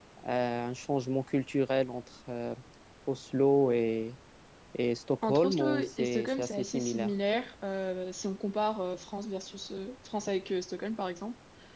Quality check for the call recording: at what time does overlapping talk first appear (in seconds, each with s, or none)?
5.2 s